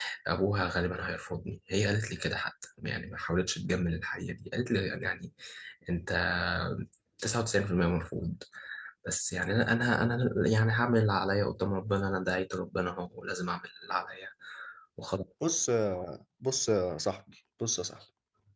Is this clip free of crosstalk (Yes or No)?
Yes